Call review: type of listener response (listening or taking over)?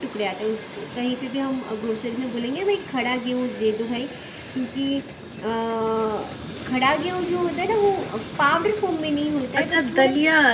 taking over